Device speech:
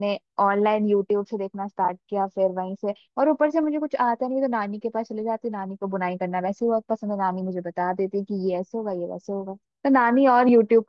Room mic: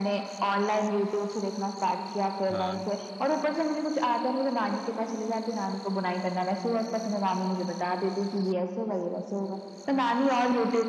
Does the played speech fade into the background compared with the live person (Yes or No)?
No